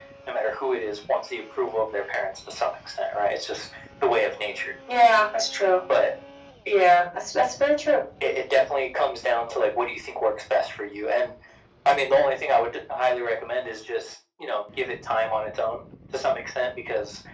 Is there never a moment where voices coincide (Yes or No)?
Yes